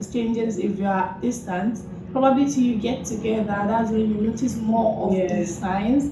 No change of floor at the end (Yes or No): Yes